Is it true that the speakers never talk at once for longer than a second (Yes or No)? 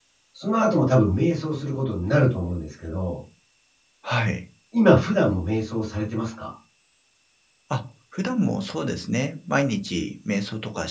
Yes